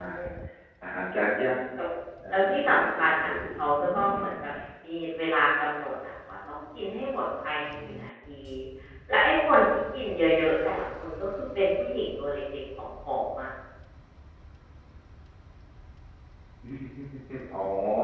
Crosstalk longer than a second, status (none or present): present